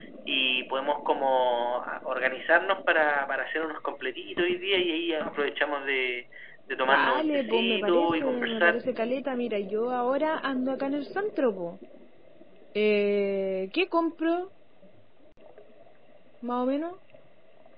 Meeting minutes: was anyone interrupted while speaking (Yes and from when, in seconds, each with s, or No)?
Yes, from 6.9 s